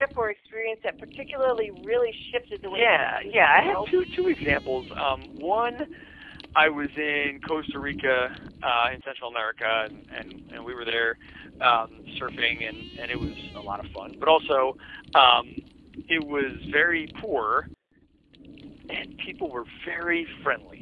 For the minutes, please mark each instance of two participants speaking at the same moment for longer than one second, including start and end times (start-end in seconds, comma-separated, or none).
2.6-3.9